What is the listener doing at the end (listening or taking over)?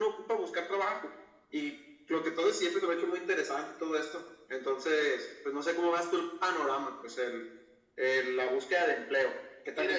taking over